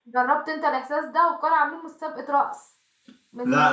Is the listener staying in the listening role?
Yes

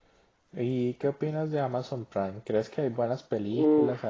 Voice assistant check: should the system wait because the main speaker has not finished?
No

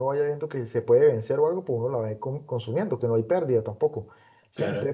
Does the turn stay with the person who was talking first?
Yes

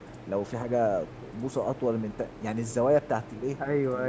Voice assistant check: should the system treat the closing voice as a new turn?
Yes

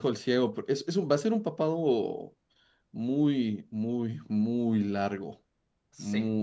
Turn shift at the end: No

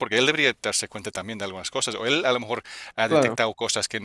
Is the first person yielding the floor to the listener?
No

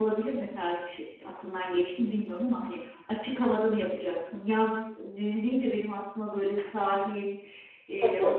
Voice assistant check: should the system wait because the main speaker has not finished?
Yes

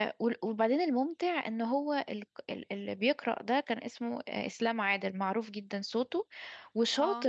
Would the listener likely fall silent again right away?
Yes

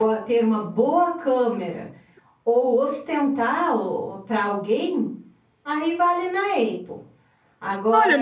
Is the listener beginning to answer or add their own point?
Yes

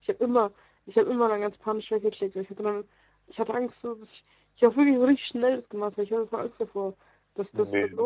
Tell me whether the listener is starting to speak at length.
No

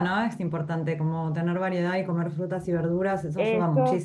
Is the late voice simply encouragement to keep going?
No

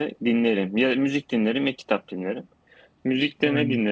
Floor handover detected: No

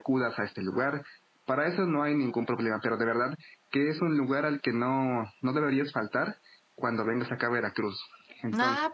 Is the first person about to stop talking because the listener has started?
Yes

